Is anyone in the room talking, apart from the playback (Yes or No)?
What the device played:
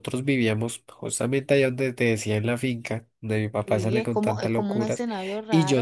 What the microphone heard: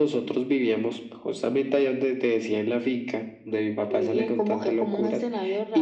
No